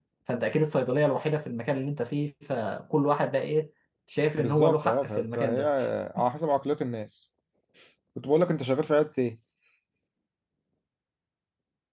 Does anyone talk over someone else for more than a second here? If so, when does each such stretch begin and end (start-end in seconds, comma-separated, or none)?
4.4-5.6